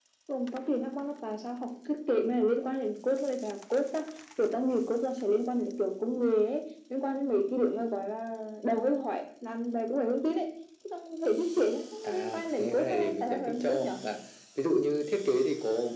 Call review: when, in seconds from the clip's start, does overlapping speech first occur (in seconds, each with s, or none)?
12.0 s